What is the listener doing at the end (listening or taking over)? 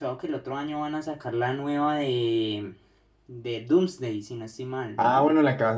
taking over